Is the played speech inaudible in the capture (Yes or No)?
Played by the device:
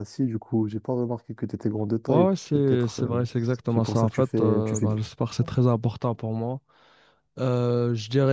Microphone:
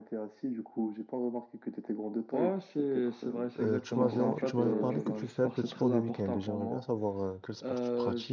No